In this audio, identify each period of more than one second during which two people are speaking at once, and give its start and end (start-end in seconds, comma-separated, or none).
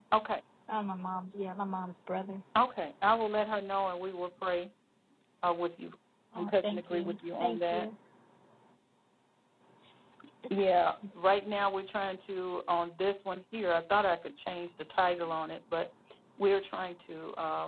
6.3-7.9